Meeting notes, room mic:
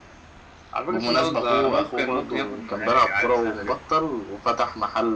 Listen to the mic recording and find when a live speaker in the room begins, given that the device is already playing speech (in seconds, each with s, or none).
none